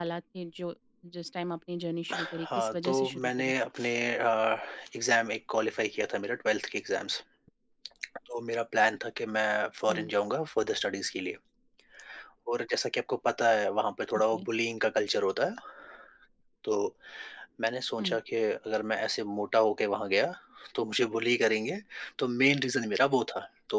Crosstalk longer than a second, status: present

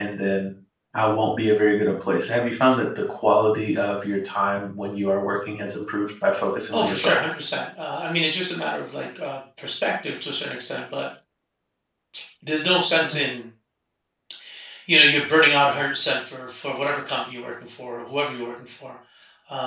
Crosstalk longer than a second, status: none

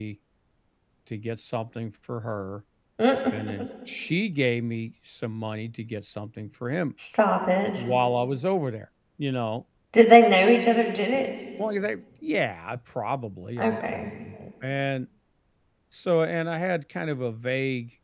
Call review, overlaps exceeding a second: none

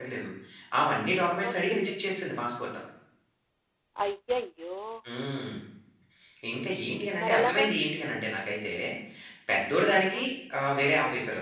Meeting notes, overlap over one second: none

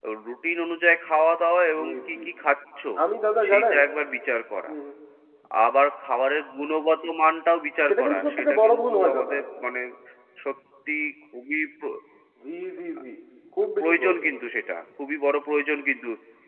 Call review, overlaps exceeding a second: present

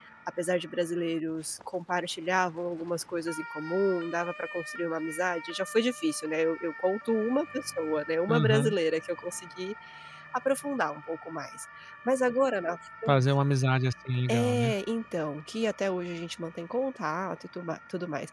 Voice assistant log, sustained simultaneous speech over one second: none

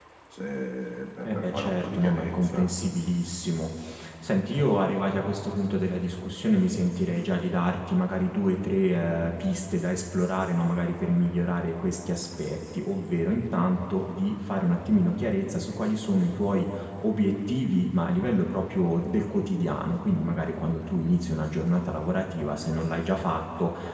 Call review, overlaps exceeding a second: present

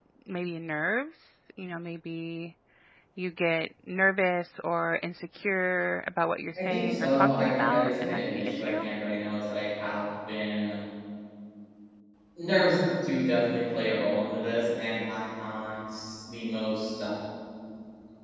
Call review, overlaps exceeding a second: present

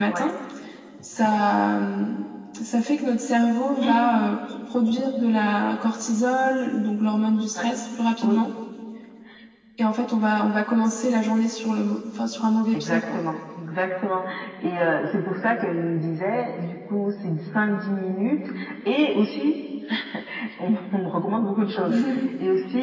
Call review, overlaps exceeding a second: none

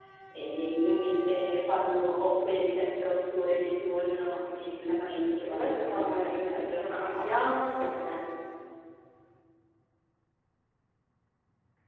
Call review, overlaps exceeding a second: present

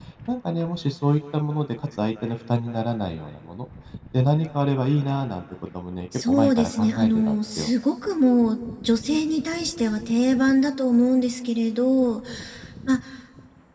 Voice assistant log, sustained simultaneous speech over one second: present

